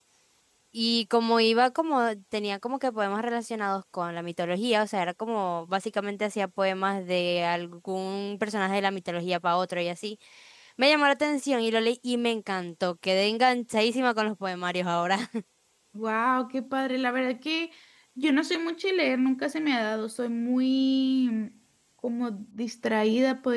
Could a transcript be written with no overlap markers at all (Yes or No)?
Yes